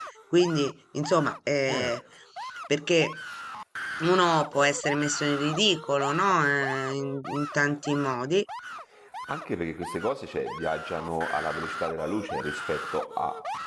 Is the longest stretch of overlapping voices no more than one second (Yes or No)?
Yes